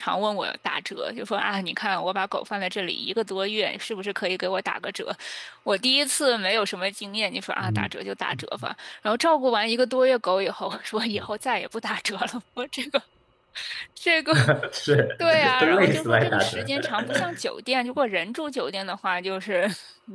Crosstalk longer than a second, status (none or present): present